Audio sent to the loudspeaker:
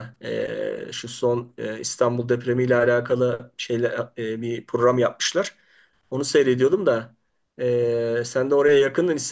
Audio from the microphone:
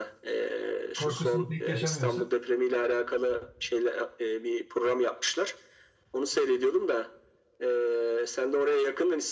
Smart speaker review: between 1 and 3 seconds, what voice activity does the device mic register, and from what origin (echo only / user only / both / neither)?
both